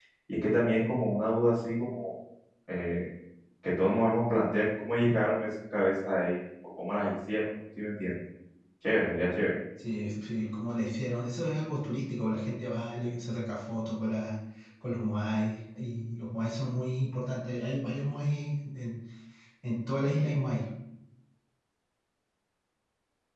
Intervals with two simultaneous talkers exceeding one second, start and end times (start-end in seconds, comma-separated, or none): none